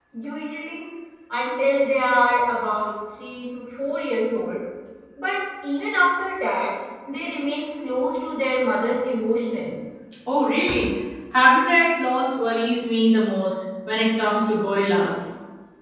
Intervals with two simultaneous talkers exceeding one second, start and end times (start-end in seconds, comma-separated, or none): none